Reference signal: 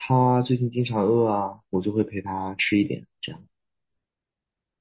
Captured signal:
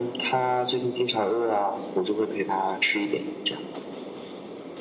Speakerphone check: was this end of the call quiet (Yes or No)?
Yes